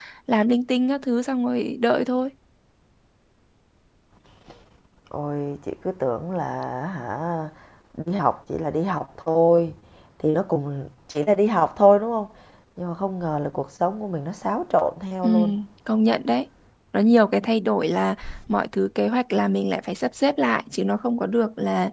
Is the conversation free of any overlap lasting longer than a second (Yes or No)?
Yes